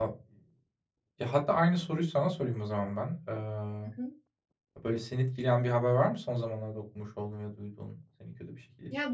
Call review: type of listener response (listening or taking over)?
taking over